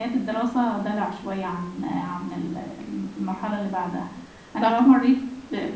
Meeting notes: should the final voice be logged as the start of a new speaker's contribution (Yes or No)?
No